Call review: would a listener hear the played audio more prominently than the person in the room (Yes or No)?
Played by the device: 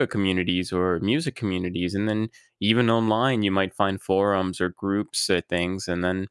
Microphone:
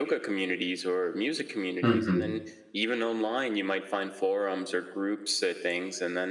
No